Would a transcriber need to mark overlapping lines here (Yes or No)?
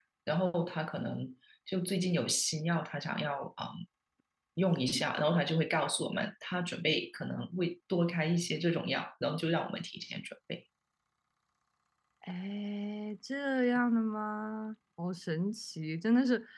No